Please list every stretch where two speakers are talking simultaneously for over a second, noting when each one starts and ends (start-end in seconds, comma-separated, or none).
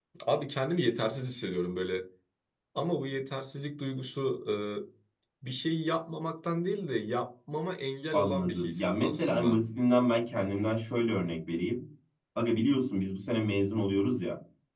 8.1-9.6